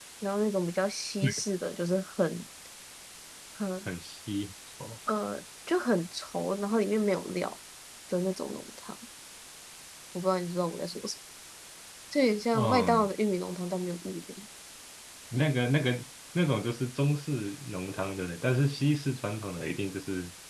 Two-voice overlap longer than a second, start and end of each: none

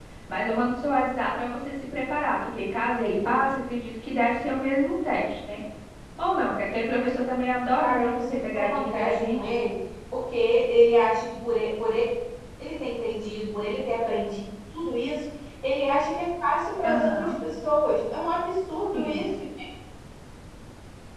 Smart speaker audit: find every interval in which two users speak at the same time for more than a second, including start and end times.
7.8-9.5

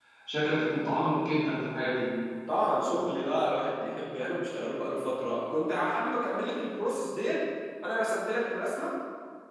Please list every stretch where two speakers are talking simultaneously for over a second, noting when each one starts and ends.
none

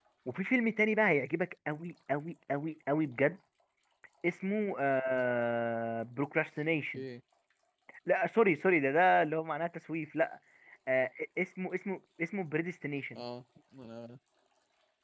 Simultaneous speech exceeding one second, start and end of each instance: none

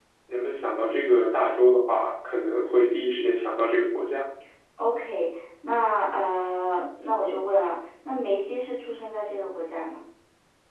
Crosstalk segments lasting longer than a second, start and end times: none

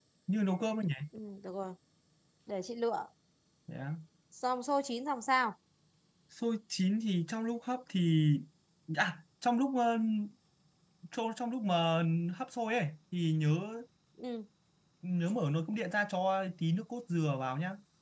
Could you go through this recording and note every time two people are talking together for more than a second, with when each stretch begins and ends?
none

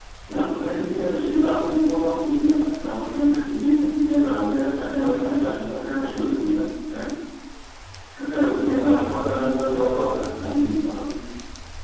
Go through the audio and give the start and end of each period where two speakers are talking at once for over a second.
8.7-10.3

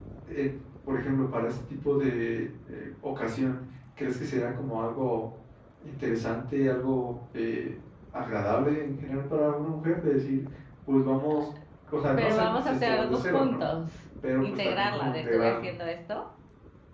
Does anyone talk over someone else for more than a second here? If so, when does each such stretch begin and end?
12.2-13.6, 14.4-15.7

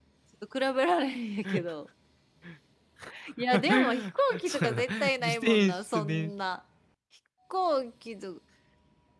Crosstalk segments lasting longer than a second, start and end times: 4.5-6.3

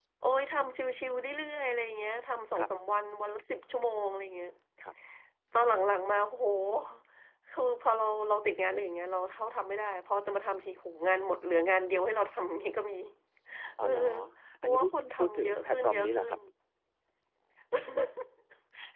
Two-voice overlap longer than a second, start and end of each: 14.6-16.3

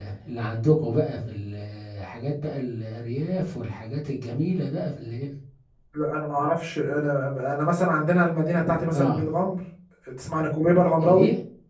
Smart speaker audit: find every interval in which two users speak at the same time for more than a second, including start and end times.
none

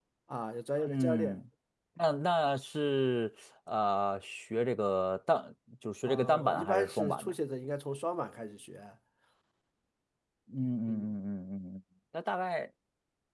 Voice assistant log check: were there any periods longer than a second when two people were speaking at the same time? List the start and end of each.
6.1-7.3

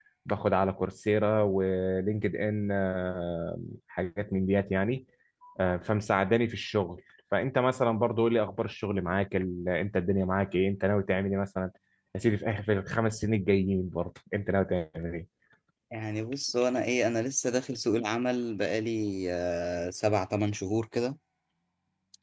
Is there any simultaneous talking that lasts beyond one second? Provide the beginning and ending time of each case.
none

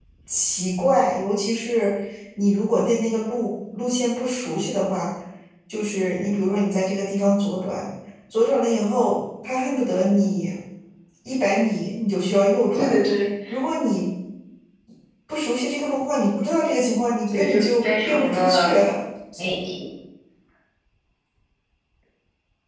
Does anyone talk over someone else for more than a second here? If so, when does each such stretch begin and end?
17.3-18.7

